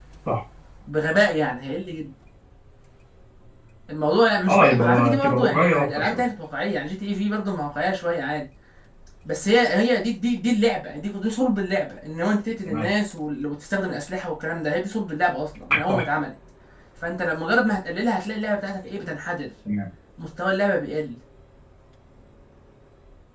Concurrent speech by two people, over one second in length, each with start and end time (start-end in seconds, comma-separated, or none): 4.5-6.2